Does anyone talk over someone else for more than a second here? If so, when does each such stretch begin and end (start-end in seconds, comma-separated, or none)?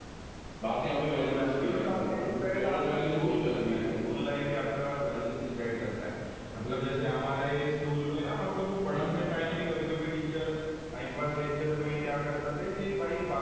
1.2-3.9